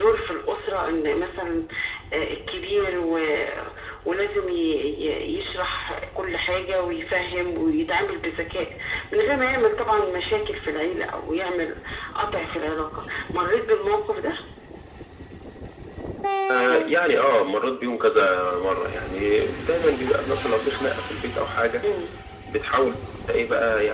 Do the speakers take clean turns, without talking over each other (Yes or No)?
Yes